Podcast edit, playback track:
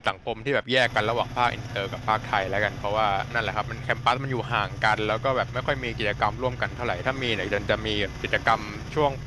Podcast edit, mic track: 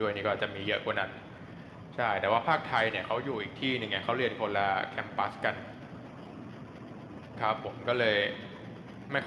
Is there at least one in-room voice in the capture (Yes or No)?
Yes